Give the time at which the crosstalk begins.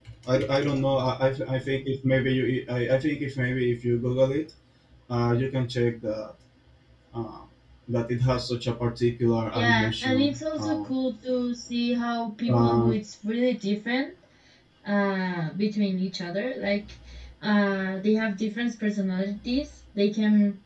10 s

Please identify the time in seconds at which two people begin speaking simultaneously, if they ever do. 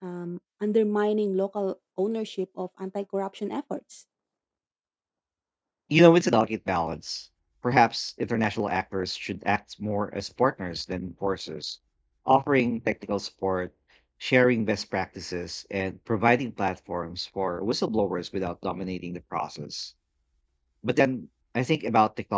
none

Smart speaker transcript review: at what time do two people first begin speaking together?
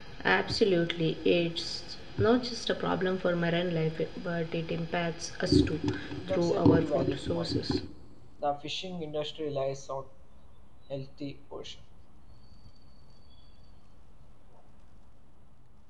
6 s

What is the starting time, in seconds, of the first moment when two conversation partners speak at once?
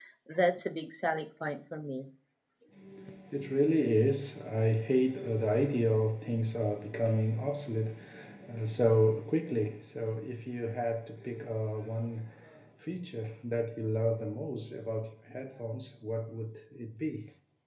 none

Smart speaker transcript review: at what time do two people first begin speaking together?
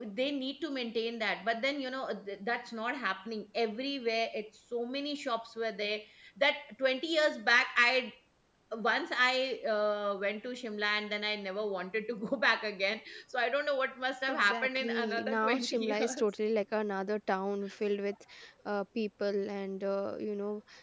14 s

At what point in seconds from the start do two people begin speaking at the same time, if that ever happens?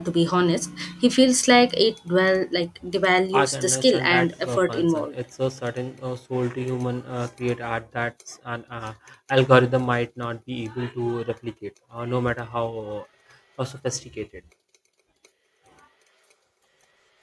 3 s

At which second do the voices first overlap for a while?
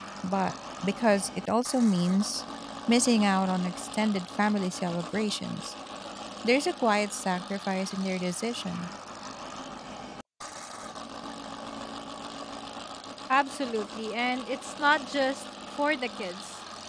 none

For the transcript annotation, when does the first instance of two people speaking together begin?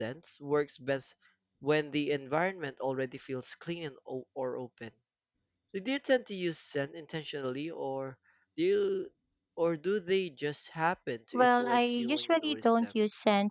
11 s

